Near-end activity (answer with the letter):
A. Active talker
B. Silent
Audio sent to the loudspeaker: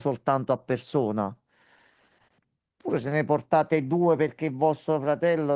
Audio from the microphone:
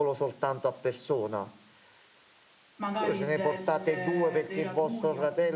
A